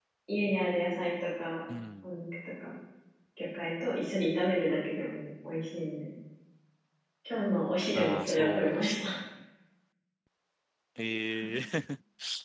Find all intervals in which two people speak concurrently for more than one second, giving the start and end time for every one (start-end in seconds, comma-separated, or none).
7.9-9.2